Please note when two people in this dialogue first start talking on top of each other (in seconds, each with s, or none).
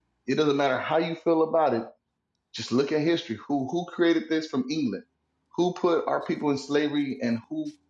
none